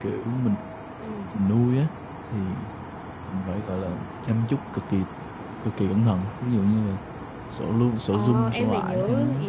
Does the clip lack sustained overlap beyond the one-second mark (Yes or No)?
No